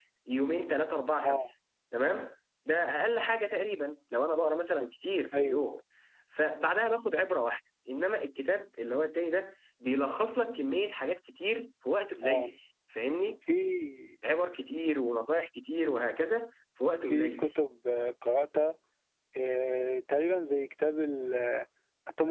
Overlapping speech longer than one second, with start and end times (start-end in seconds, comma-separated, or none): none